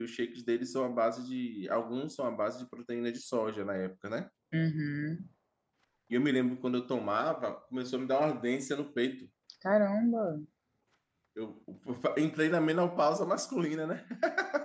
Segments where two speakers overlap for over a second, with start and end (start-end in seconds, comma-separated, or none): none